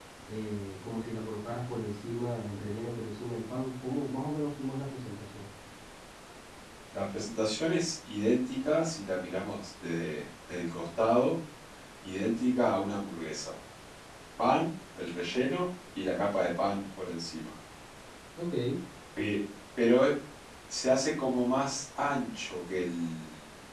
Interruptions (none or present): none